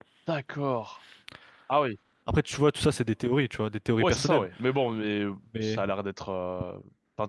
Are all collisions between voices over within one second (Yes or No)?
Yes